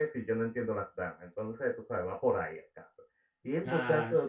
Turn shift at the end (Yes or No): No